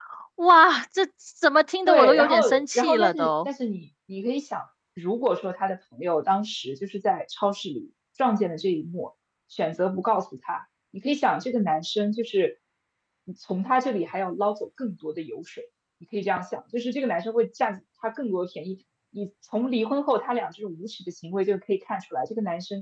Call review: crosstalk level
present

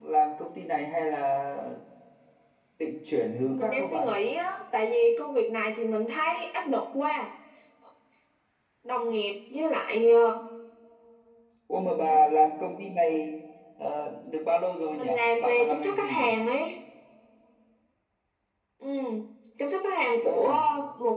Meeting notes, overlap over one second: present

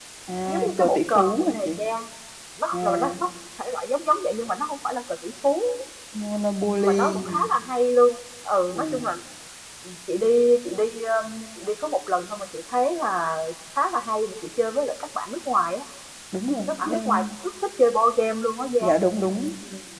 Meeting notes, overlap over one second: present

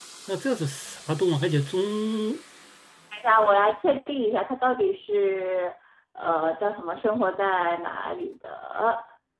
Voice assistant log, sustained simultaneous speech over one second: none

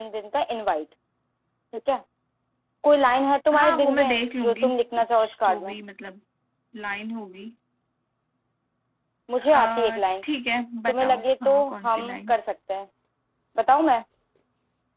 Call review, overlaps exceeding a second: present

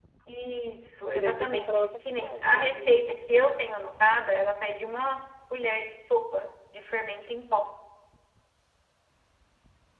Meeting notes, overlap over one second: present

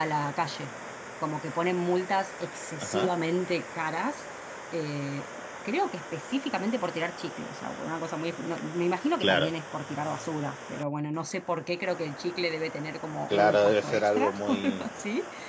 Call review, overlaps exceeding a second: present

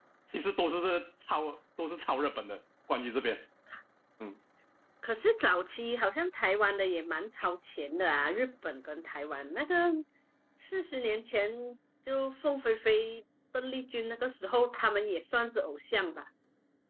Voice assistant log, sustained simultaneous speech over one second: none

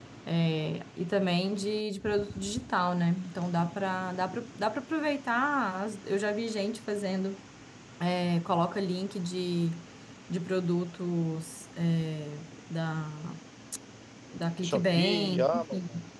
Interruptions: present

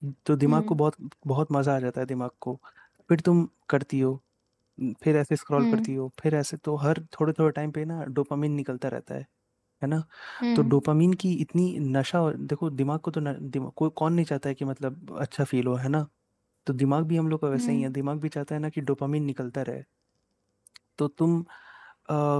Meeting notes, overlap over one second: none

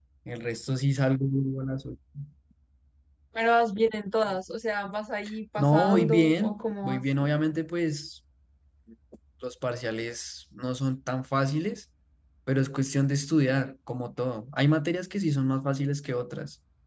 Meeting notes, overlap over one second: present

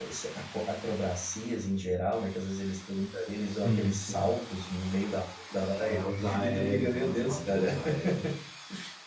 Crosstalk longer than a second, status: present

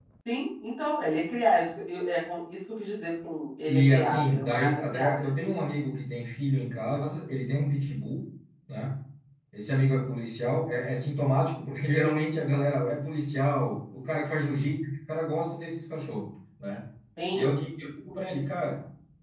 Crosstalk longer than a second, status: present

